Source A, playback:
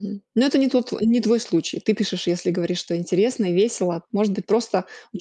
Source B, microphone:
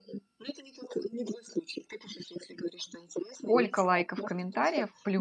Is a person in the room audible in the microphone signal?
Yes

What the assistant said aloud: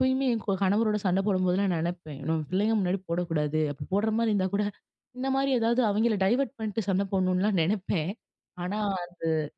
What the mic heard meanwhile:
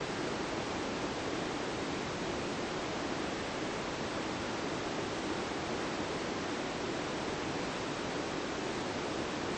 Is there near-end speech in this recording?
No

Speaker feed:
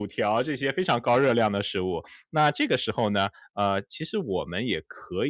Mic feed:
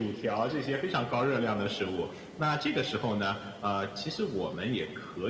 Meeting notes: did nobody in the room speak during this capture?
Yes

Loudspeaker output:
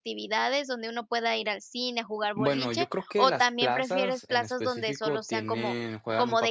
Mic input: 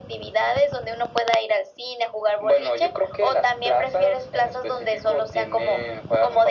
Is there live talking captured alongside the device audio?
No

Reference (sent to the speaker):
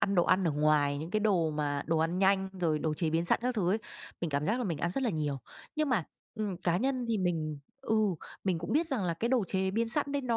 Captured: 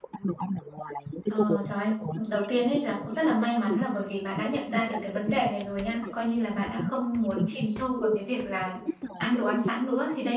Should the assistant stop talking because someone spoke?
Yes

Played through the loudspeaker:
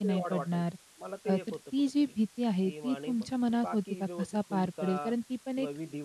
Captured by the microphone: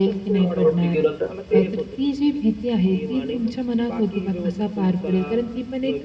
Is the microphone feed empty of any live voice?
No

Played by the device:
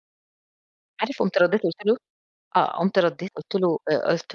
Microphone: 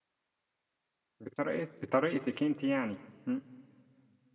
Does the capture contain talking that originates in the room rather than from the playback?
Yes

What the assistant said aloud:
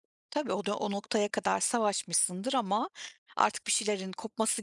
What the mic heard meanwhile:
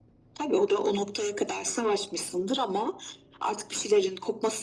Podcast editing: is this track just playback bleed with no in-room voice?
Yes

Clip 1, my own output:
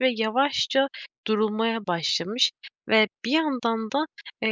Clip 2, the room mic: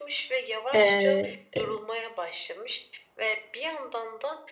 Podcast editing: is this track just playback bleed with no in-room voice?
No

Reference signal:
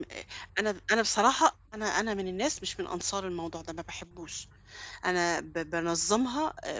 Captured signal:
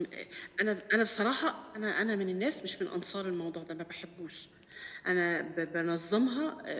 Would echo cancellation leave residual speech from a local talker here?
No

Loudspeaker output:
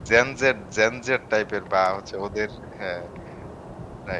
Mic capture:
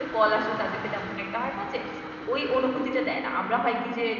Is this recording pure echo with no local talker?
No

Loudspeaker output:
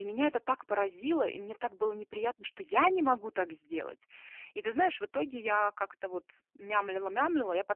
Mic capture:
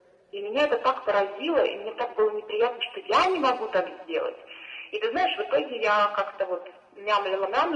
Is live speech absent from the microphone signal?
Yes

